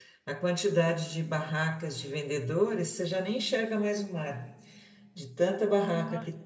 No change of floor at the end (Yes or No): Yes